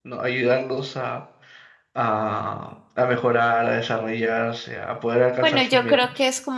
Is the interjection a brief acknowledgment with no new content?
No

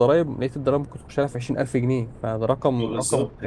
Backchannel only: No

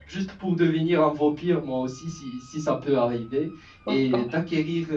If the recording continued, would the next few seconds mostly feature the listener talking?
No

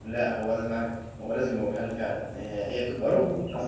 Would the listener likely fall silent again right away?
Yes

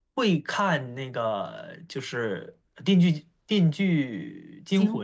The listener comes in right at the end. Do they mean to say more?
Yes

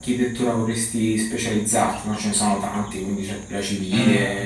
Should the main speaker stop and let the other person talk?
Yes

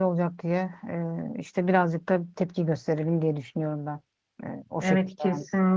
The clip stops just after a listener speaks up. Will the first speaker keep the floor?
No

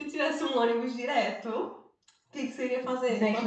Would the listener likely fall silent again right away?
No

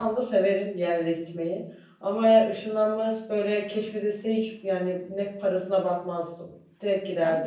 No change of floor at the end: No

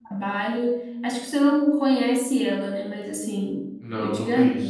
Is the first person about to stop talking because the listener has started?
Yes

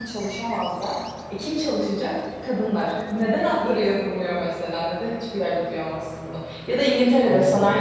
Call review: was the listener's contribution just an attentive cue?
Yes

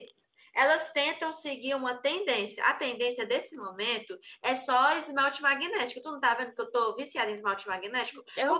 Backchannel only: Yes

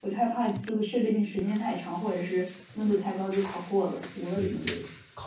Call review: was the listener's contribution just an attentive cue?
No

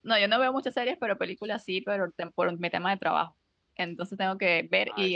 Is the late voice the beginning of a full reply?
No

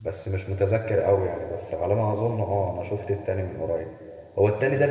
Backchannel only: Yes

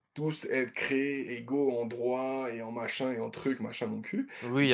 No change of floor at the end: No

